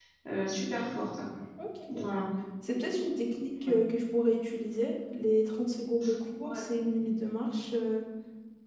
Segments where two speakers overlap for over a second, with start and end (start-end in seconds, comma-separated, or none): none